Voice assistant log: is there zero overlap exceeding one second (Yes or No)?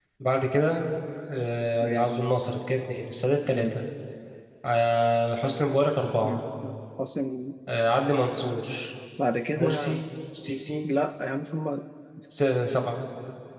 Yes